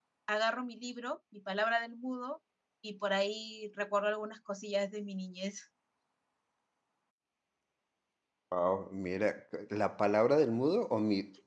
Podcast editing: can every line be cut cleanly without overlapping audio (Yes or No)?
Yes